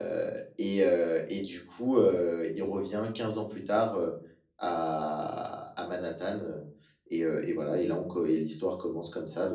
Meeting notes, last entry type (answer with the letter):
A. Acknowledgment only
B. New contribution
A